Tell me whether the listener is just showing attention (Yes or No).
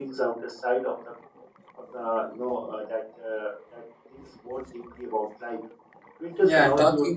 No